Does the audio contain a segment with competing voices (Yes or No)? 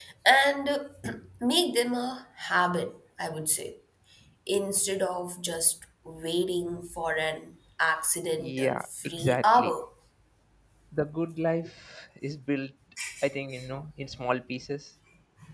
Yes